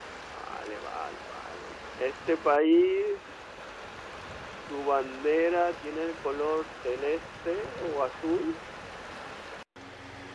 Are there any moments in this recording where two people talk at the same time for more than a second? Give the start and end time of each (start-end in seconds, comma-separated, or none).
none